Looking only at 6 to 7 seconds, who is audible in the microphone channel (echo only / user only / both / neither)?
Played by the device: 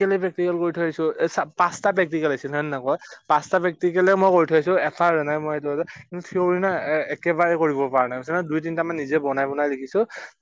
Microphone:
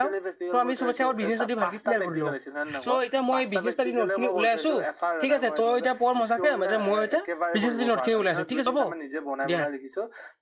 both